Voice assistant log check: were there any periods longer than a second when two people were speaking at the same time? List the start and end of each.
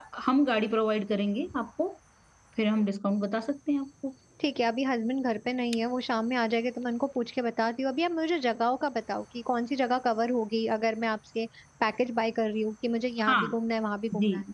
none

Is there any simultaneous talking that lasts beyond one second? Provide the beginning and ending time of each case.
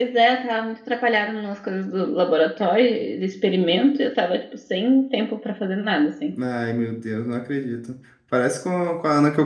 none

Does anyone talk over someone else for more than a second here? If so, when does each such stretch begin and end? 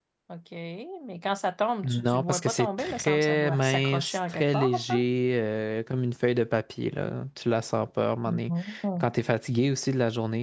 1.8-5.0

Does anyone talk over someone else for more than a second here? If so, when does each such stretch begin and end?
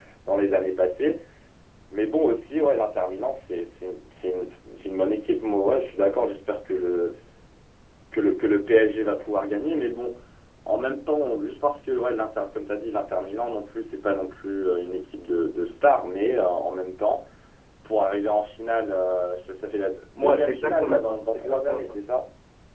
20.2-21.8

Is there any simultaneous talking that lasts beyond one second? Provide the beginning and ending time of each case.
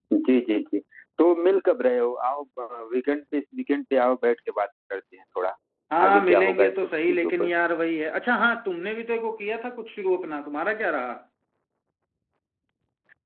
6.1-7.5

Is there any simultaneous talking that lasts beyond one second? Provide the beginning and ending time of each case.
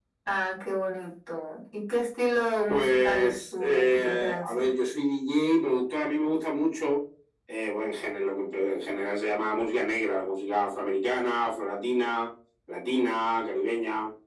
2.7-4.7

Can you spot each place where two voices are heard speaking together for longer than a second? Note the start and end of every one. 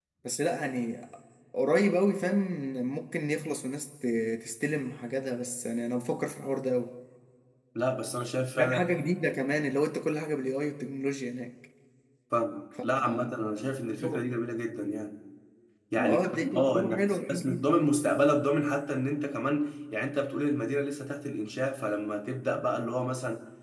16.0-17.7

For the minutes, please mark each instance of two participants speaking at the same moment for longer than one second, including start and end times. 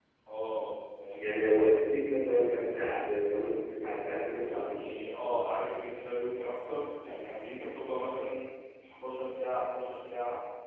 none

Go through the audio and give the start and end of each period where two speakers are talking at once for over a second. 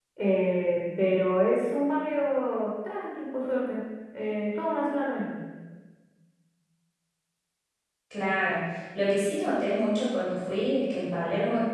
none

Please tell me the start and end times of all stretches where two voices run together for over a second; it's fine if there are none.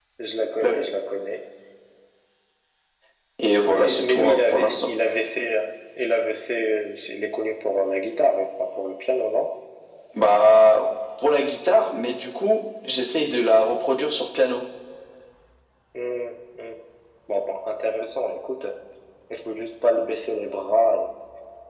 3.7-4.9

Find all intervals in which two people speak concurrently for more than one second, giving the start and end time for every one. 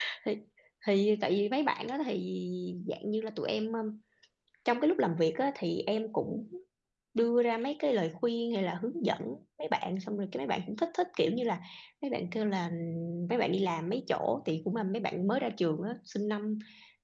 none

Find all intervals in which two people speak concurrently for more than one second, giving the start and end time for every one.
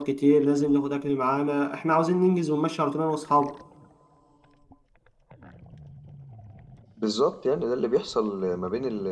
none

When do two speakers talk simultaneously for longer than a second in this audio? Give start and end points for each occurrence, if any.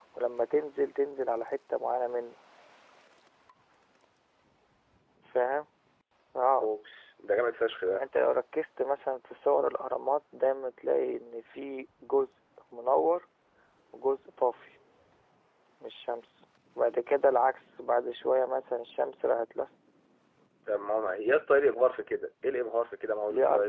none

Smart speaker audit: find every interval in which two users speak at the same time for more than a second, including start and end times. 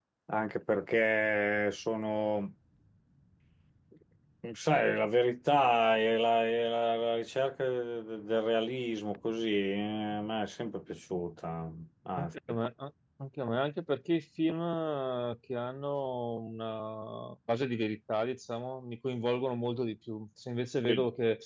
none

